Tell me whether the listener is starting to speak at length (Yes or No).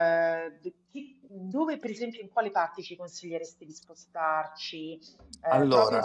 No